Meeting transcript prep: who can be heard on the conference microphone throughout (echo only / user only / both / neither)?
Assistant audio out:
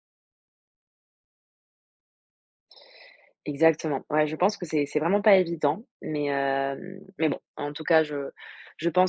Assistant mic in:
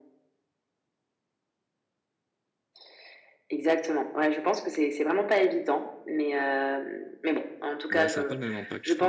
both